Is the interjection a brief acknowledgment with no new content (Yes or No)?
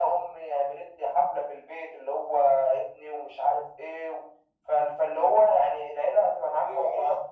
No